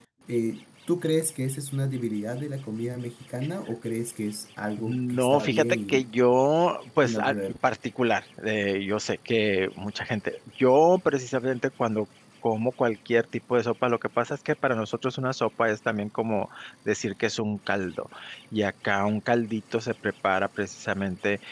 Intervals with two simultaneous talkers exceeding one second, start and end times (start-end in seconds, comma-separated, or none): 4.8-6.1